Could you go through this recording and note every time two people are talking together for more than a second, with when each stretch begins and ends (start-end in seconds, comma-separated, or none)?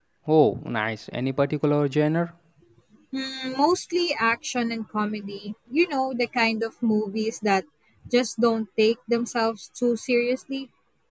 none